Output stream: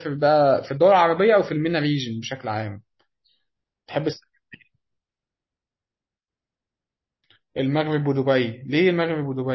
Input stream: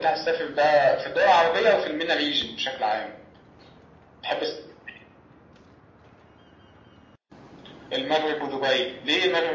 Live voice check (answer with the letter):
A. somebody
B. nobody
B